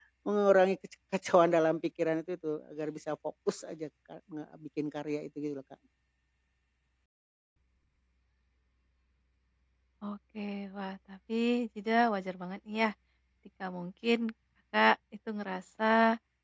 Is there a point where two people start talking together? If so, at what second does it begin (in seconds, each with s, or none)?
none